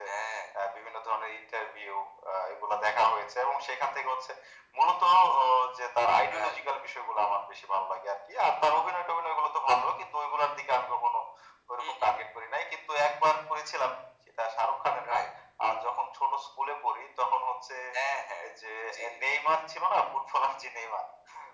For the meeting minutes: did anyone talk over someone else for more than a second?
No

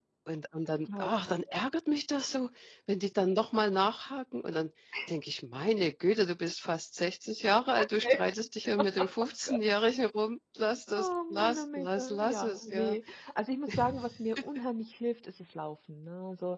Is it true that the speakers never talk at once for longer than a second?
No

